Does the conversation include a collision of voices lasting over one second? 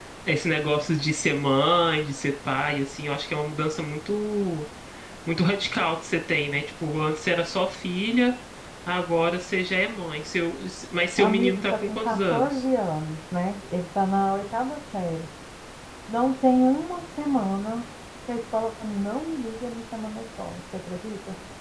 Yes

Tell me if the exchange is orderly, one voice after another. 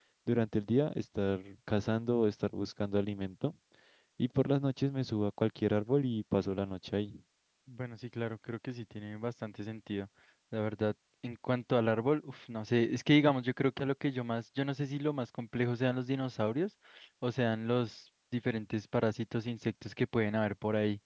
Yes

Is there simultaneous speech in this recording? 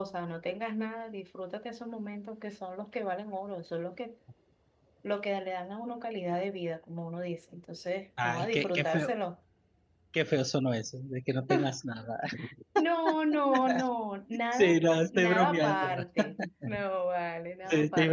Yes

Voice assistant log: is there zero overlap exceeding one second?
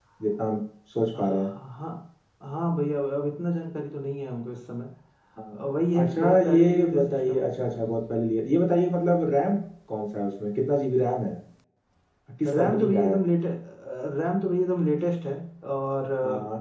No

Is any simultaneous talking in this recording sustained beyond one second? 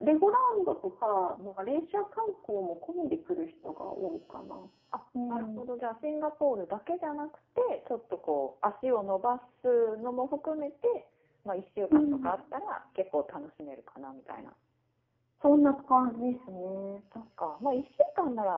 No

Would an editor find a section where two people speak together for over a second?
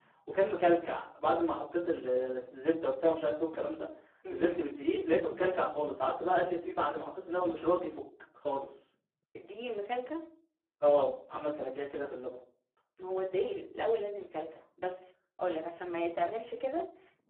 No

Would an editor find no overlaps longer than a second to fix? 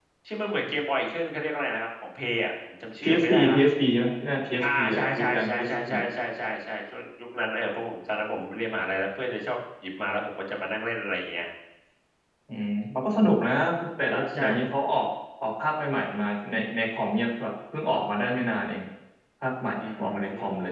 No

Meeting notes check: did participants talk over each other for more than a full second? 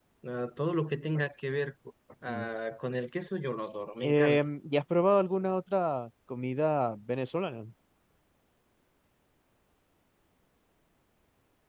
No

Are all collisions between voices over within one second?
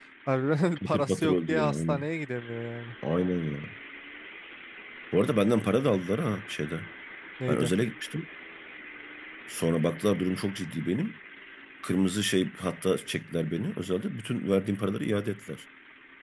No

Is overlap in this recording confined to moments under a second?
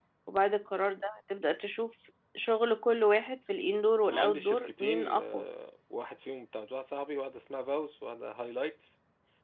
No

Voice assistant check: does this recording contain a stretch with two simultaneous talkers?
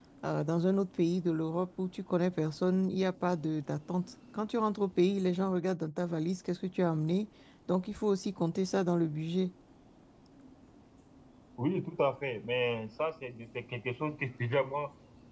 No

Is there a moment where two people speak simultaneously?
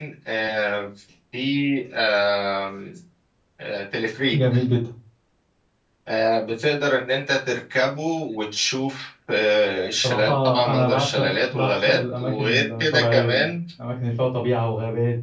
Yes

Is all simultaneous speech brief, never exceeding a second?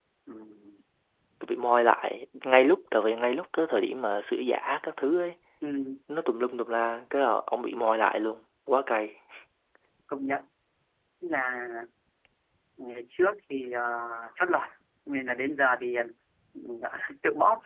Yes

